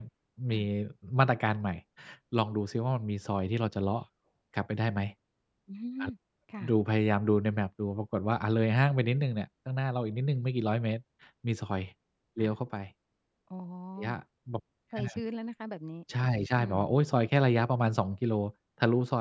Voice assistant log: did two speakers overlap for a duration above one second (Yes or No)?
No